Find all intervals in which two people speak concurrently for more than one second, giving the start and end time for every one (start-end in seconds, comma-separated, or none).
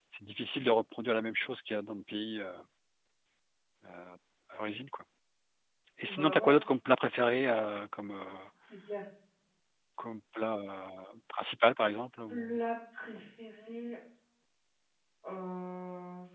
none